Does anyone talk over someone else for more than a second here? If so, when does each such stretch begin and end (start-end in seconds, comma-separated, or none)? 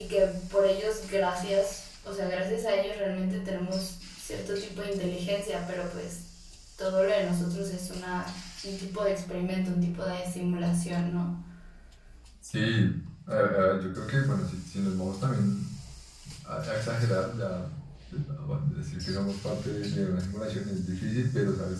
none